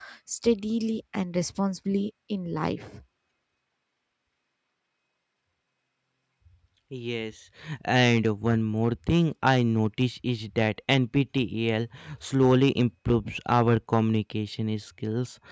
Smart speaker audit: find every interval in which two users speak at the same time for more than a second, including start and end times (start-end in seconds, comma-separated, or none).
none